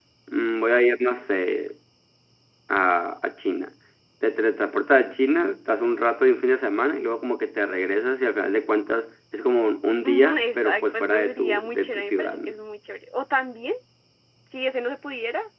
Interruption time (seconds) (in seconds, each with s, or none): 10.0 s